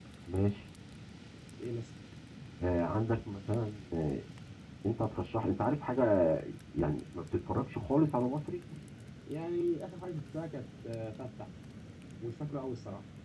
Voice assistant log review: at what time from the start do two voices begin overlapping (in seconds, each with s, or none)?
none